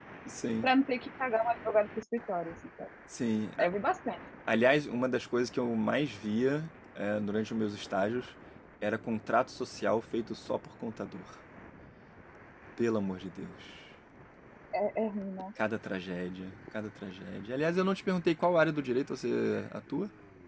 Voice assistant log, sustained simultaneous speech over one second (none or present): none